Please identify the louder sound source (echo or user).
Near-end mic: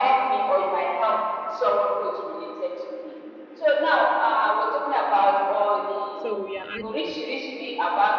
echo